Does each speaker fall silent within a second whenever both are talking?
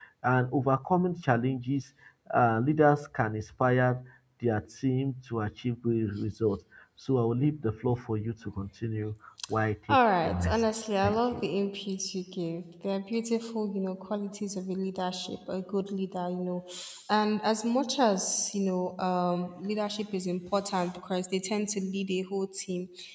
No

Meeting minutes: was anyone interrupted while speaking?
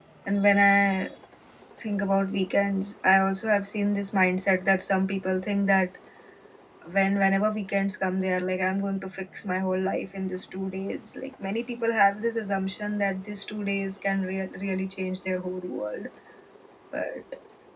No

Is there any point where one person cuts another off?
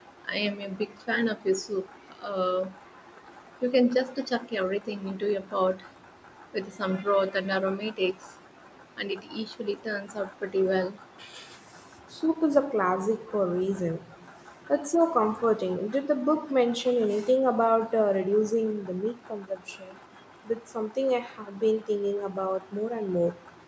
No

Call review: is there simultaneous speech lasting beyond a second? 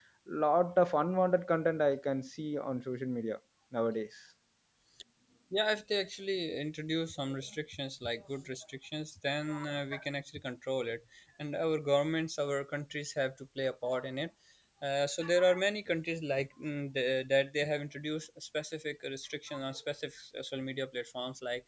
No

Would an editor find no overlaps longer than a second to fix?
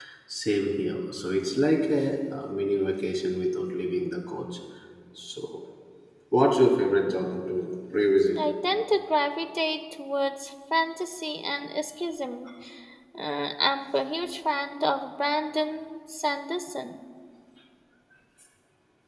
Yes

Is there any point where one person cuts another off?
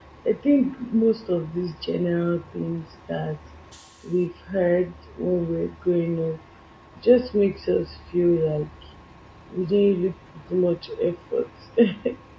No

